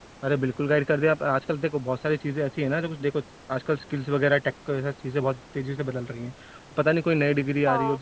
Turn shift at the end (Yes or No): No